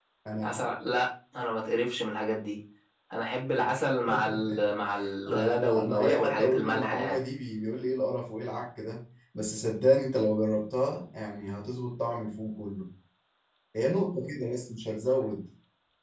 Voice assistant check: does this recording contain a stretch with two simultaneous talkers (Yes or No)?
Yes